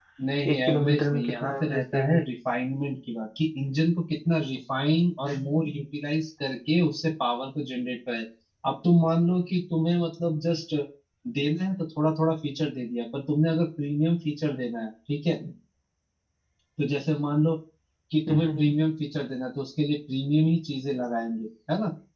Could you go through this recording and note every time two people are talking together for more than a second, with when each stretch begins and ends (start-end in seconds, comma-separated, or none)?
0.5-2.2